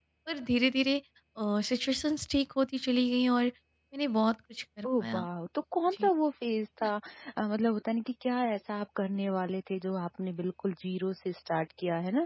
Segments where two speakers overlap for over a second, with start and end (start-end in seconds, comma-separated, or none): none